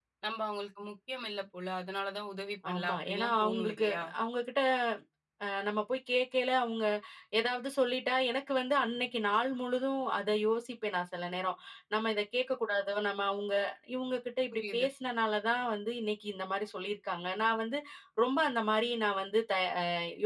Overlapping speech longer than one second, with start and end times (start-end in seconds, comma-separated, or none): 2.7-4.0